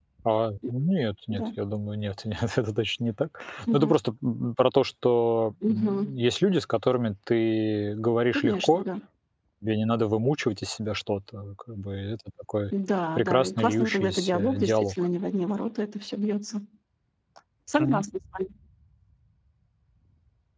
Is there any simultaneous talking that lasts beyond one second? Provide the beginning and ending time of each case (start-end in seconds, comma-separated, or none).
13.2-15.0